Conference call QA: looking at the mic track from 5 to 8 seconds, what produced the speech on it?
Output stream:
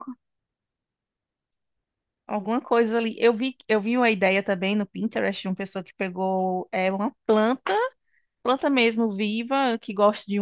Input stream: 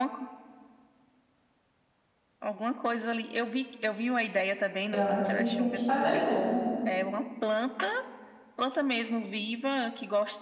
both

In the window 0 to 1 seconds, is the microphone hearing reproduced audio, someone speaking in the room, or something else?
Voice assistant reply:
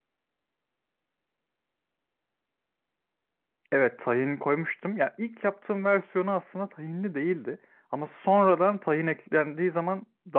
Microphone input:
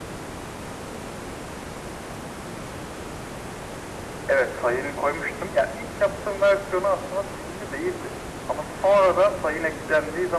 neither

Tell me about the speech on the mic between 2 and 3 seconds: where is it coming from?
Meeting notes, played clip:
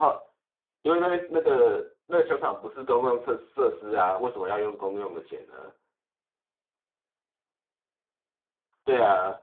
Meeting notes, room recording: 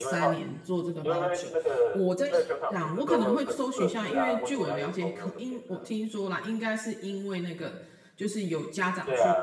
both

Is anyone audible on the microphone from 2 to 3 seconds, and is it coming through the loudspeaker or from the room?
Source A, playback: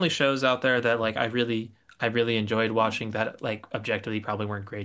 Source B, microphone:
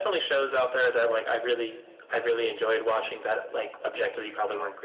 echo only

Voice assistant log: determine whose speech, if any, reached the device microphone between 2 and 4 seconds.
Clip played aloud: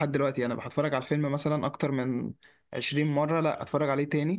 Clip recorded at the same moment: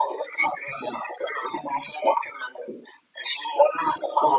echo only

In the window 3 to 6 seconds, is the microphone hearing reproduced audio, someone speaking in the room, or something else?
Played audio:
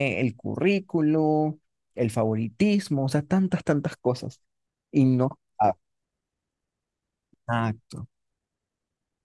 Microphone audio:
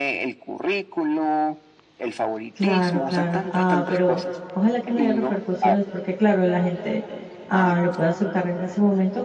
both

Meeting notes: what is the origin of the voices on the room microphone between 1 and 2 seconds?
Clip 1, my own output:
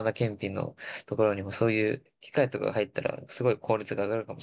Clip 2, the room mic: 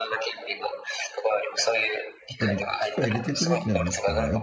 echo only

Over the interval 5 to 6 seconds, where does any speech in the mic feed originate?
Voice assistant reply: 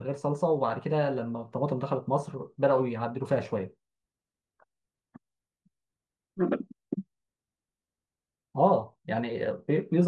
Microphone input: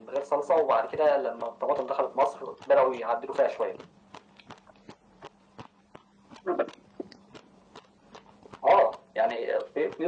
neither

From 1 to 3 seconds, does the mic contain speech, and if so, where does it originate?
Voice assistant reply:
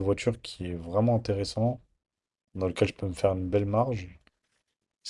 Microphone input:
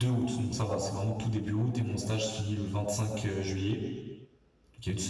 user only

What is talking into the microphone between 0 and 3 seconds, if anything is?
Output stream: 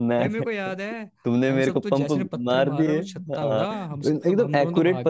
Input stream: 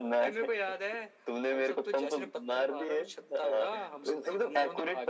echo only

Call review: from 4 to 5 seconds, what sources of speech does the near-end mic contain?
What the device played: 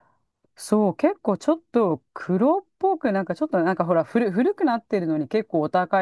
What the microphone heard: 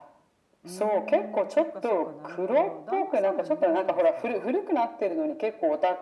both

